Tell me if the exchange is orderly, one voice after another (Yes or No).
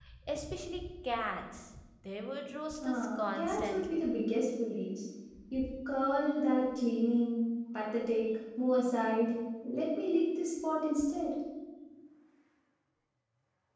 No